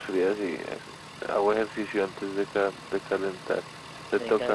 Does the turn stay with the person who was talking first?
No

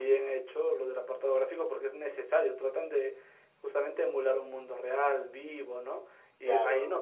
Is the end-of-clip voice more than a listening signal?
No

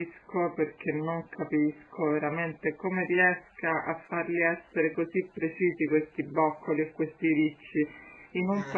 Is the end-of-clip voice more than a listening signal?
No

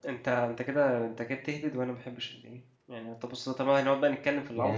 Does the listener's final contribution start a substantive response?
Yes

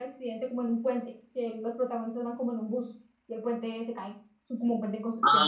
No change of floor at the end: No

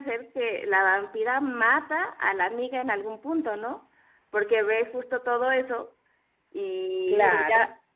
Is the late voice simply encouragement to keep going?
Yes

